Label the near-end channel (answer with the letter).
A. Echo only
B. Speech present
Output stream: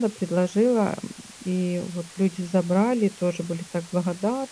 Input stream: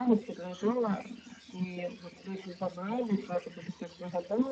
A